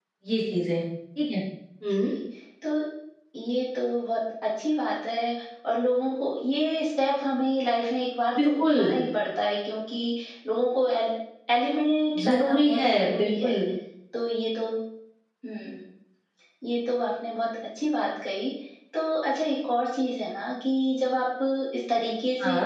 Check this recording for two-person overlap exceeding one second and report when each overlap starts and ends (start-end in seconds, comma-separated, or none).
12.2-13.6